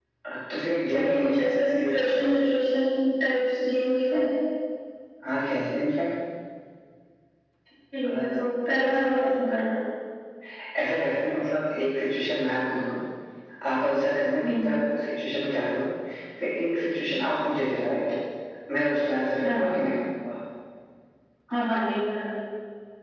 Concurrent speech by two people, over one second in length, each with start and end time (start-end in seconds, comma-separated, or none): 0.9-2.6